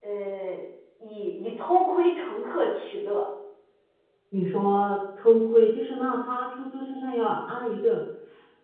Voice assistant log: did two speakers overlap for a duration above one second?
No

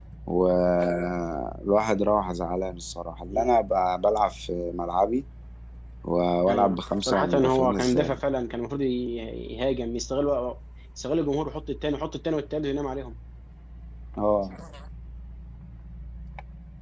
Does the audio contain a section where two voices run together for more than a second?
Yes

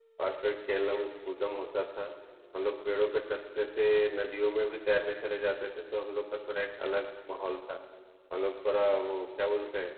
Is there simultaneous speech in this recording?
No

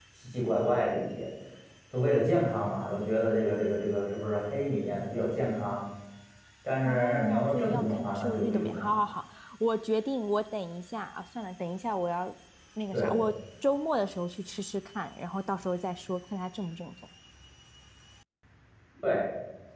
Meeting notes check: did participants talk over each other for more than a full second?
Yes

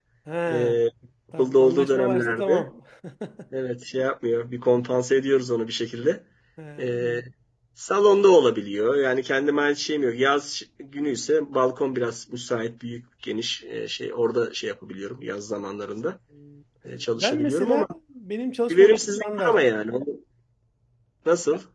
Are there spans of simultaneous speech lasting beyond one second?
Yes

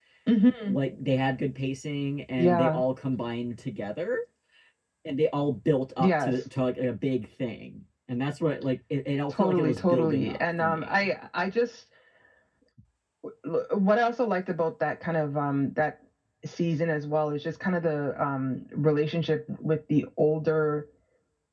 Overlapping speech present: Yes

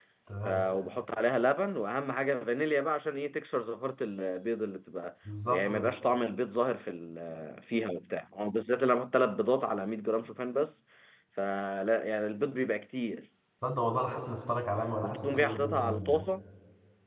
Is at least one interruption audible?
Yes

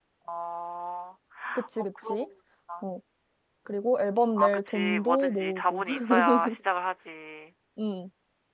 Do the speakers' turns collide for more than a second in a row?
Yes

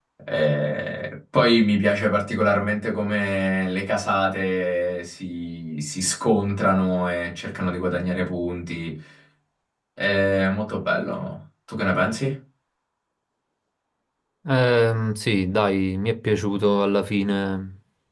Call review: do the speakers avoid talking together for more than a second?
Yes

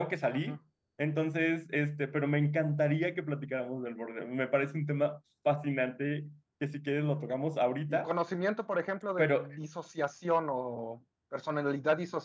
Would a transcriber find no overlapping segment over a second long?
Yes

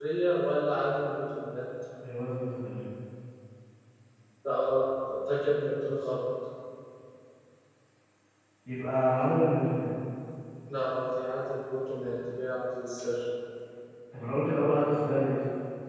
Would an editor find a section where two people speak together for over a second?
No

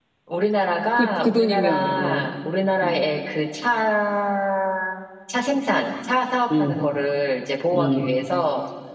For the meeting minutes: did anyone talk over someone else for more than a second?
Yes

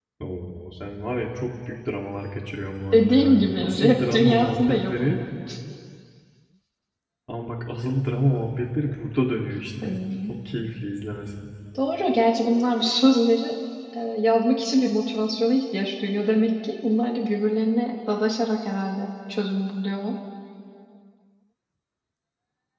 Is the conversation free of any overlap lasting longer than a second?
No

